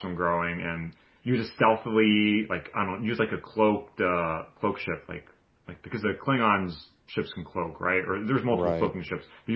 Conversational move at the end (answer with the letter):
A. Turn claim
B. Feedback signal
B